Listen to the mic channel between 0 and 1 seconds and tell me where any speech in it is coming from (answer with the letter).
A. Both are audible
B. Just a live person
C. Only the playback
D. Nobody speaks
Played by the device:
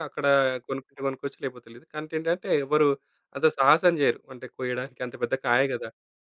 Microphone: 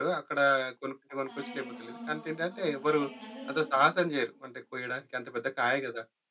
C